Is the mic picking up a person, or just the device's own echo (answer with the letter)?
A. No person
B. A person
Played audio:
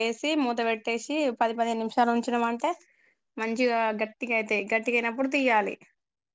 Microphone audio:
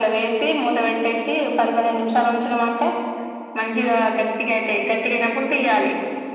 A